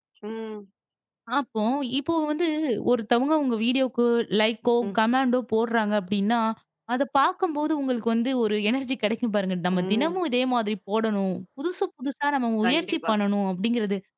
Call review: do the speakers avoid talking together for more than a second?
Yes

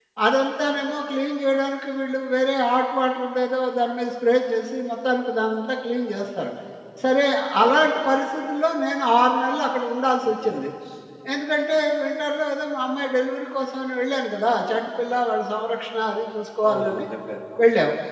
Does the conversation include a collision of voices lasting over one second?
No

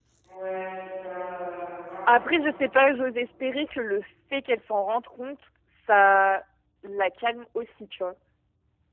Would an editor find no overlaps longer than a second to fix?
Yes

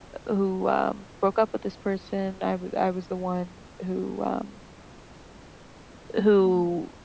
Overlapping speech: No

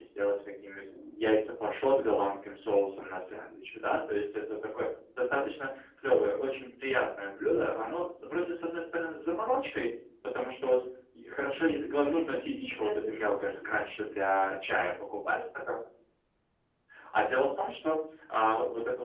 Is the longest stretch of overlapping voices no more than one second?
No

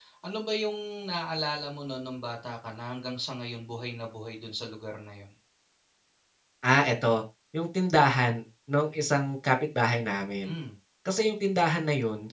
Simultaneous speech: No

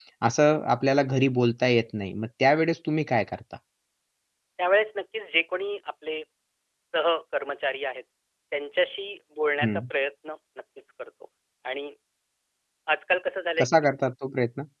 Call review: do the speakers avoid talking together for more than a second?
Yes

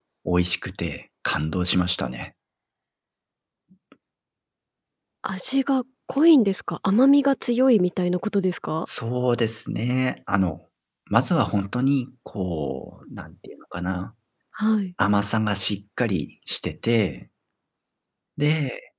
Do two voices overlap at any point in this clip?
No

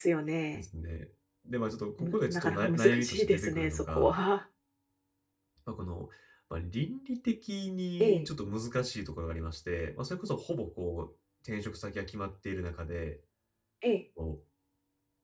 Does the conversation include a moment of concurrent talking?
Yes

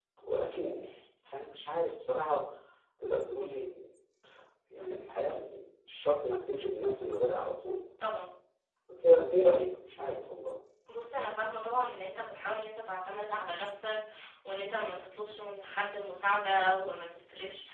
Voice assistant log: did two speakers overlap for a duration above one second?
No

